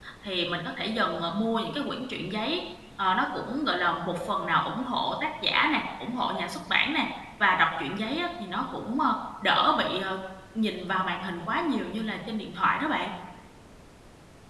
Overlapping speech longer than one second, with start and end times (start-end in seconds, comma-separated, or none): none